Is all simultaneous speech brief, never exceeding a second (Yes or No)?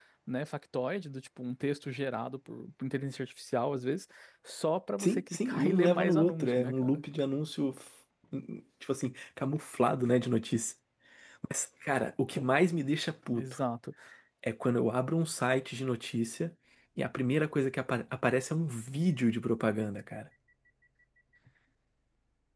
No